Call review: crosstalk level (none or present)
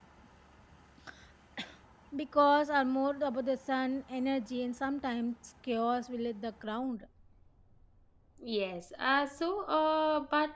none